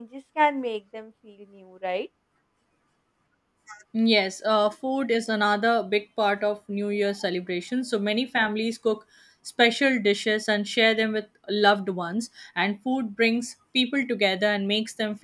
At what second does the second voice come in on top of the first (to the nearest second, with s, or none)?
none